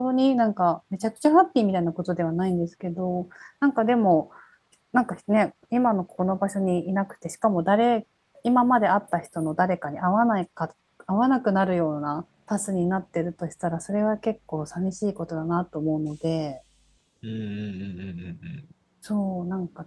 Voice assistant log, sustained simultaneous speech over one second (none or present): none